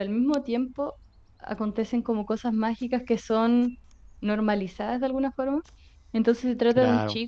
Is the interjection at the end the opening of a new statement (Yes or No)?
No